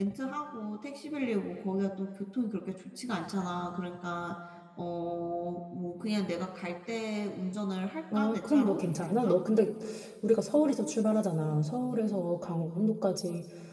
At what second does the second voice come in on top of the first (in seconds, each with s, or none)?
8.1 s